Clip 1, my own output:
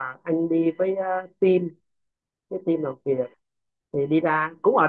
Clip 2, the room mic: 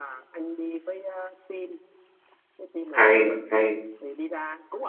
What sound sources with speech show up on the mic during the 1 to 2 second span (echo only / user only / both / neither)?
echo only